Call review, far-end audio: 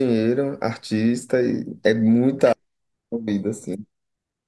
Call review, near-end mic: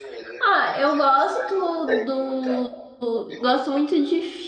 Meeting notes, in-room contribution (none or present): present